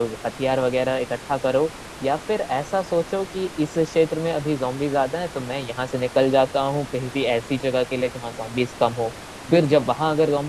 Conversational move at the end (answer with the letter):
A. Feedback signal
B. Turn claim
A